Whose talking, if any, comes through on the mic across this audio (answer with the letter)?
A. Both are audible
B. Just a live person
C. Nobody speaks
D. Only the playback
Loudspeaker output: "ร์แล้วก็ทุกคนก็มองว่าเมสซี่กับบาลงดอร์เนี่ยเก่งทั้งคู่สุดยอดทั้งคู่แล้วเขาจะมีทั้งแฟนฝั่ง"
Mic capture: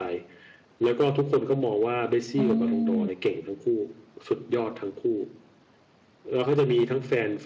A